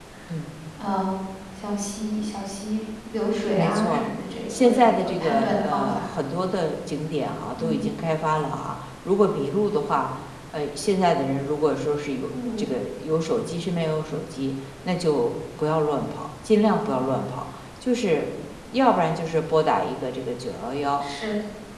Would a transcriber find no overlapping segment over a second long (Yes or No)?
No